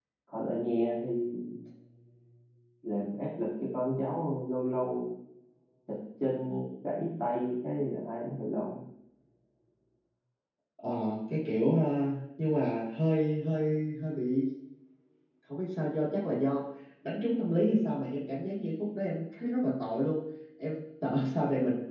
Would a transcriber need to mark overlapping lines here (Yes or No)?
No